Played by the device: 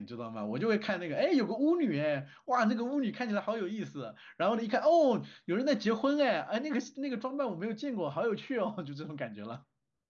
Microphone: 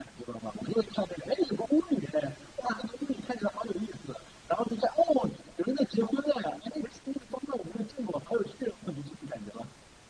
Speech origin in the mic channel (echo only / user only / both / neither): echo only